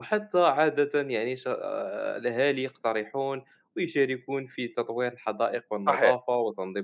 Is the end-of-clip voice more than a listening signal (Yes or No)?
No